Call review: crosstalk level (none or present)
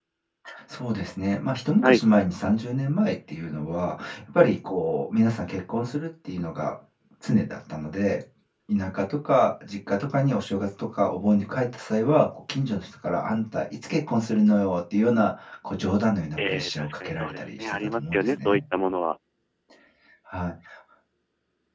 present